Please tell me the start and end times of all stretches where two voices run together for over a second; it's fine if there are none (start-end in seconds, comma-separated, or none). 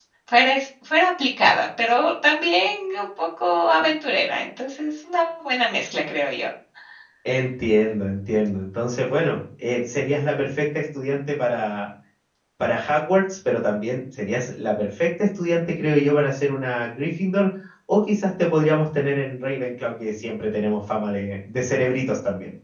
none